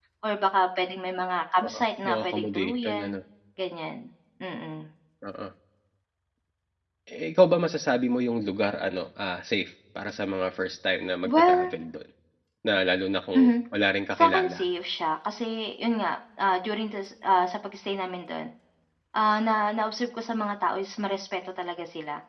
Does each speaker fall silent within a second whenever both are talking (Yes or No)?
No